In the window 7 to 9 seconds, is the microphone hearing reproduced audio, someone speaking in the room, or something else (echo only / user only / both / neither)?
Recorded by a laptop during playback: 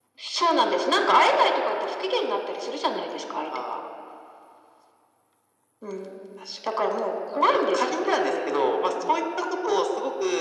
echo only